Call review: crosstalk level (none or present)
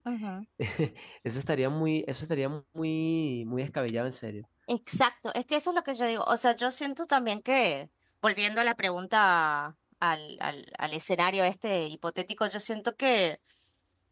none